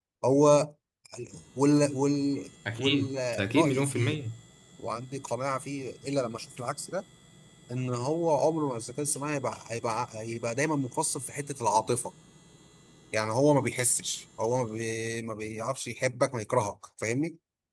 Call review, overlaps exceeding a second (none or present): present